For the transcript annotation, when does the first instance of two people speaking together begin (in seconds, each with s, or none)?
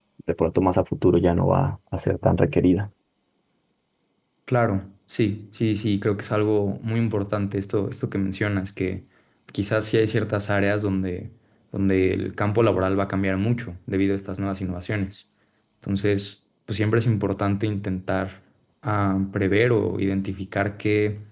none